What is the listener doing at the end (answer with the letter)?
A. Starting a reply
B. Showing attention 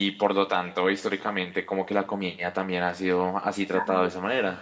B